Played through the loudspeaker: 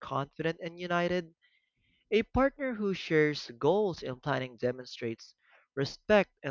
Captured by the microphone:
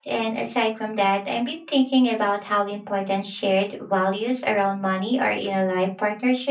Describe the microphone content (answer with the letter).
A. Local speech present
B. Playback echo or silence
A